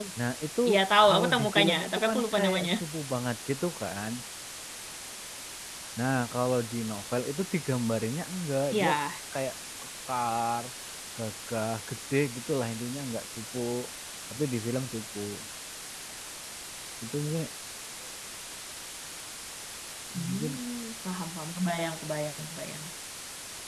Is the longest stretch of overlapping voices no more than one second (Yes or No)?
No